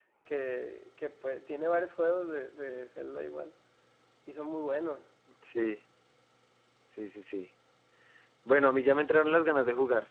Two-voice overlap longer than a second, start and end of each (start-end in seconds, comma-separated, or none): none